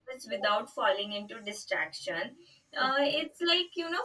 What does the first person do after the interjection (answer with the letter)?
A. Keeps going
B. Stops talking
A